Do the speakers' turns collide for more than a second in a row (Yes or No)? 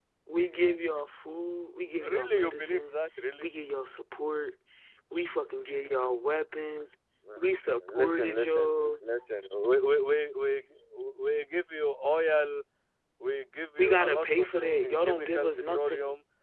Yes